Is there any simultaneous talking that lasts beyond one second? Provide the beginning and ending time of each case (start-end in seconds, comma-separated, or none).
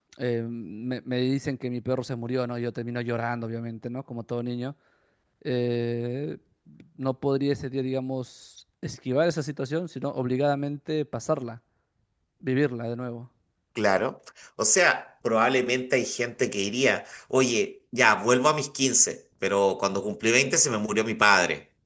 none